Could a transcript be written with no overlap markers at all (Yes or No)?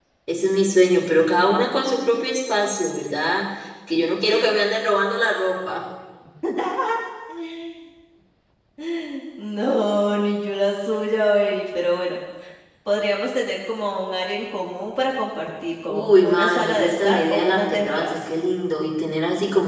No